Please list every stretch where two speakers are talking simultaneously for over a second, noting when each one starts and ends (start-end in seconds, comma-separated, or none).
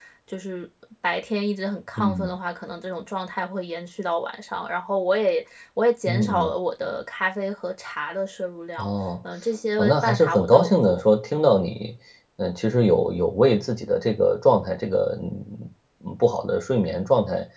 9.8-11.0